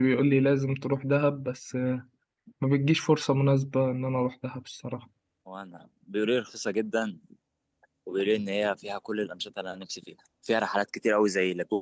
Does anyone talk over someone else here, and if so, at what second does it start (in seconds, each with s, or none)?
none